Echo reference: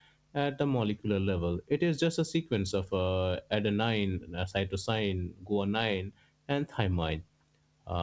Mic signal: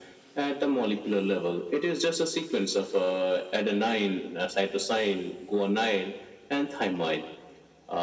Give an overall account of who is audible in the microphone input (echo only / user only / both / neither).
echo only